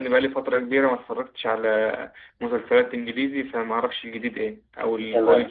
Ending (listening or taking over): taking over